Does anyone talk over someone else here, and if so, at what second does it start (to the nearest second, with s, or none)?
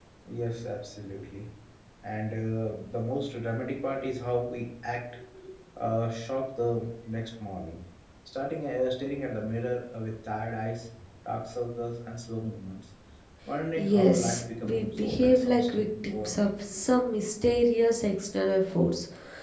14 s